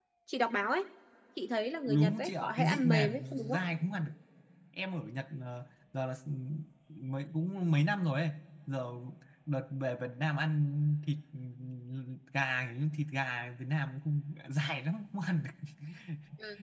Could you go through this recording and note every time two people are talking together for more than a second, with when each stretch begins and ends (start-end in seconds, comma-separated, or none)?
1.9-3.6